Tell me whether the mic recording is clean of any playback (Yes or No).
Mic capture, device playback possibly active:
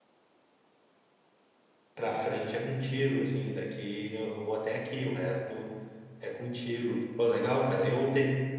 Yes